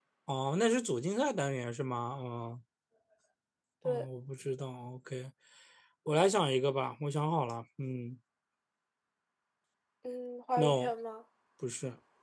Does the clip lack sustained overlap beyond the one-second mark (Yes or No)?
Yes